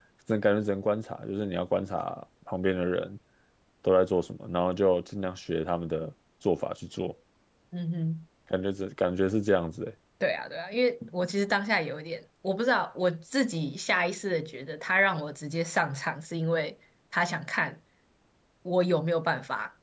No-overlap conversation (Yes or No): Yes